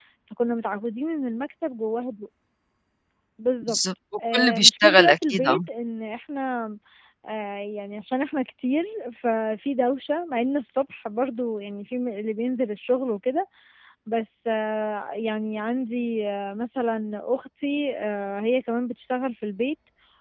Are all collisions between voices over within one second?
No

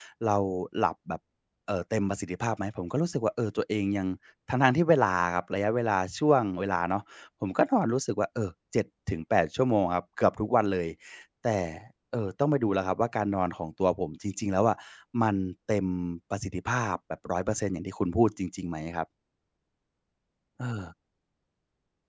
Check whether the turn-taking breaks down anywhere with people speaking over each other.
No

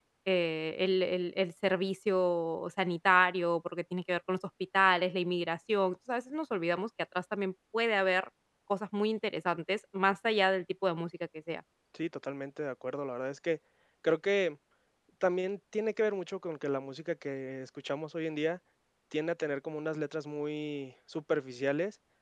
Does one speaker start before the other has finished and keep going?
No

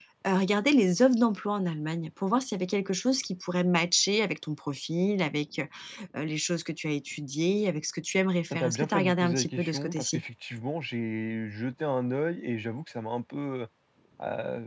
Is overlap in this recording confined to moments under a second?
No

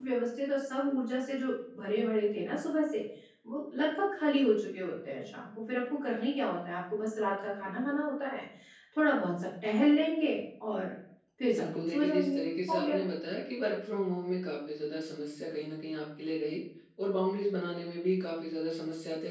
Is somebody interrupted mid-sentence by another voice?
Yes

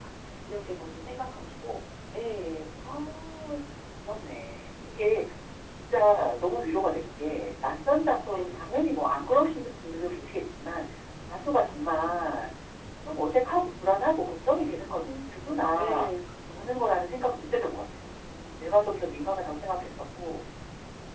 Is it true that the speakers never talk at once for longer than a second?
Yes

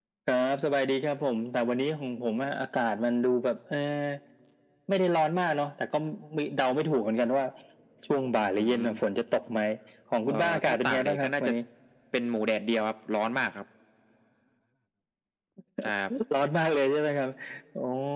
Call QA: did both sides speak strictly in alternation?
No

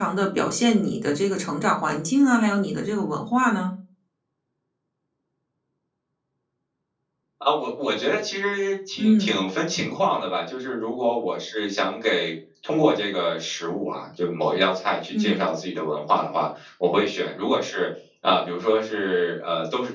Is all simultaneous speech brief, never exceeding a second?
Yes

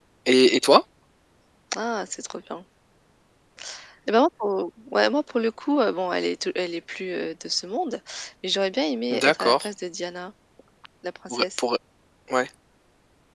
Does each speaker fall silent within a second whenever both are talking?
Yes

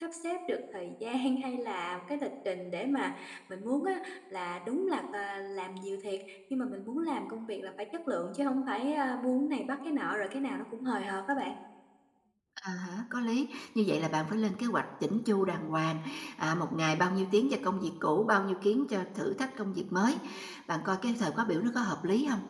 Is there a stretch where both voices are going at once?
No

